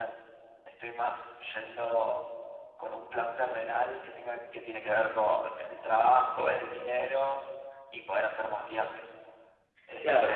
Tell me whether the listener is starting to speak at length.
Yes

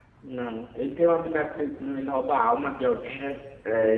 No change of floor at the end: No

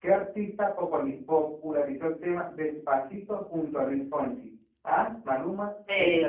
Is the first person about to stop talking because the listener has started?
No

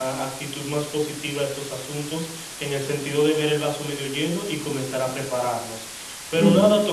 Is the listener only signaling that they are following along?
Yes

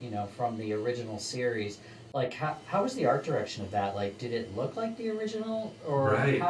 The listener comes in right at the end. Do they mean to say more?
Yes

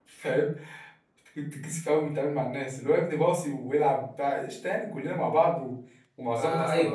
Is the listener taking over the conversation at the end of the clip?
No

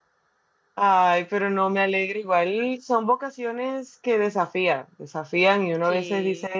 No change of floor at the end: Yes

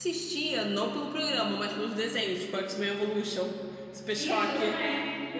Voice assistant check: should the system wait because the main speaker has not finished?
No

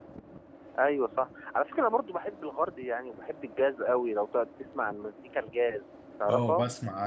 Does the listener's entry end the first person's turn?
Yes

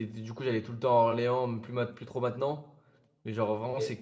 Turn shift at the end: No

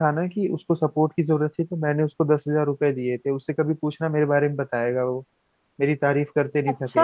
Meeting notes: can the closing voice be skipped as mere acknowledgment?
No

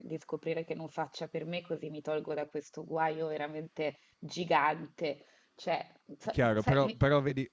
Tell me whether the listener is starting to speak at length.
Yes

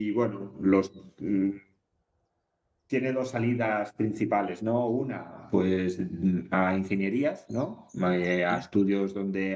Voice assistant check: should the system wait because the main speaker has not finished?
Yes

